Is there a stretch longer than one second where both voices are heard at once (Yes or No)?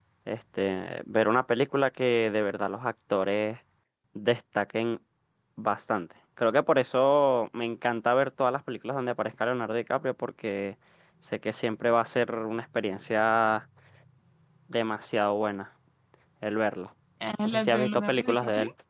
Yes